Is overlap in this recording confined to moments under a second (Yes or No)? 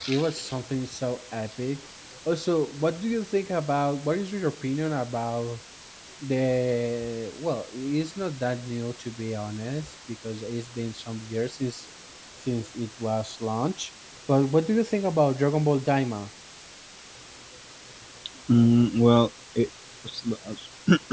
Yes